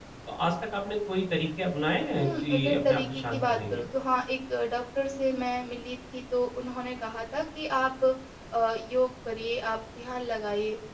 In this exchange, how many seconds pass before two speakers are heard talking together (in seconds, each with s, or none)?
2.1 s